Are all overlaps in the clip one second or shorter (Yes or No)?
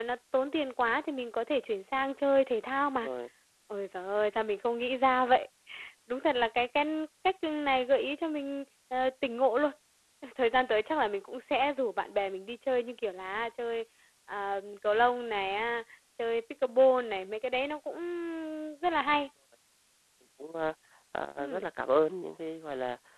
Yes